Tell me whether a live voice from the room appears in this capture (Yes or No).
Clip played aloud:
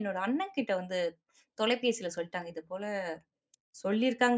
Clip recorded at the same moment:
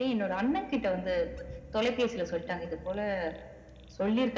No